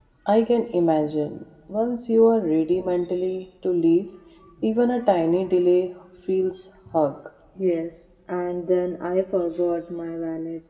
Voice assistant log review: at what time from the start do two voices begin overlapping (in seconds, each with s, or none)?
none